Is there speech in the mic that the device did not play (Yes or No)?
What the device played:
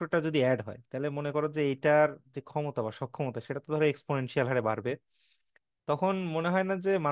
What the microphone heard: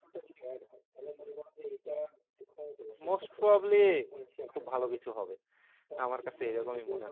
Yes